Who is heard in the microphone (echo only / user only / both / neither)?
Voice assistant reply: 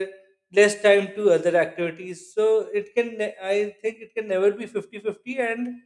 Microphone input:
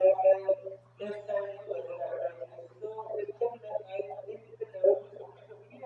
echo only